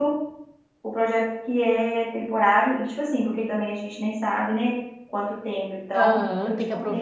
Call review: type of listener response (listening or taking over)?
taking over